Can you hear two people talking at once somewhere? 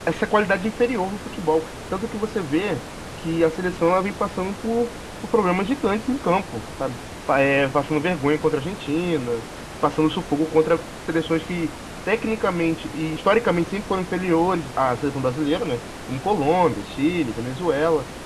No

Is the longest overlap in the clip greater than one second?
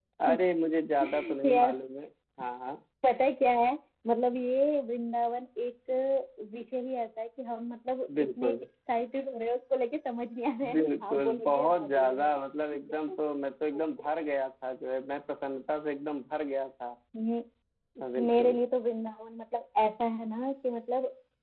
Yes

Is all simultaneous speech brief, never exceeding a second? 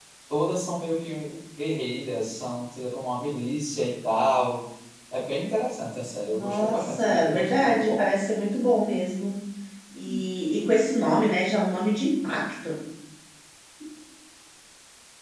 No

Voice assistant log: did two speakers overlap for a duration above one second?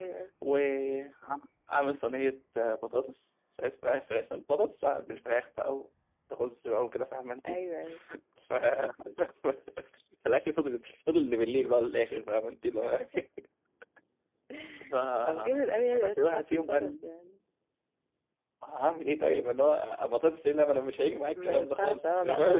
Yes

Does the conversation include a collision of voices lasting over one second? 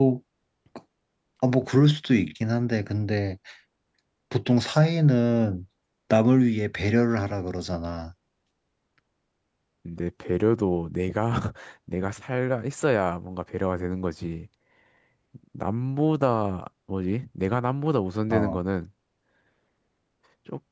No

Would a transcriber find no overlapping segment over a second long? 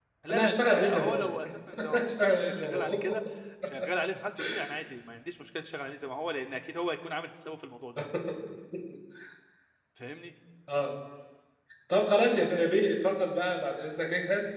No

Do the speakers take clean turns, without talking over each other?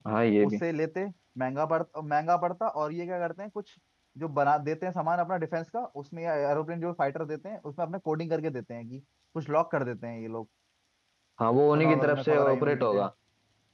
No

